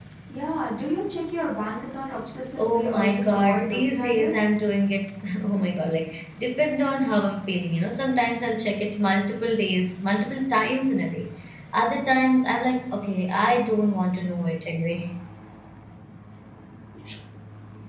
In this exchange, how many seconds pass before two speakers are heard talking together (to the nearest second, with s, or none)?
3 s